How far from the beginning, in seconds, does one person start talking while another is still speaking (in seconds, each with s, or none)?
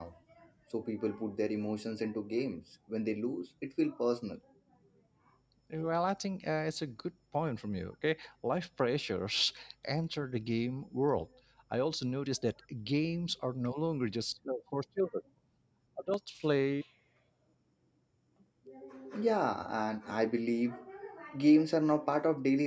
none